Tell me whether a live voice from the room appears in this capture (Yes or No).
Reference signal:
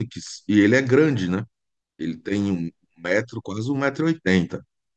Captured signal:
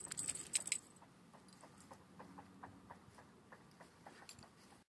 No